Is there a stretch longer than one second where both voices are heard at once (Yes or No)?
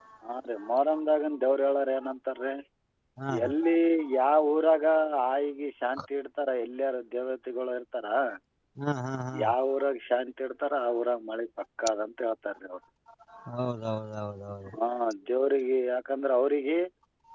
No